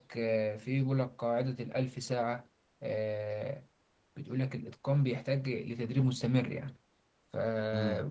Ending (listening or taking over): listening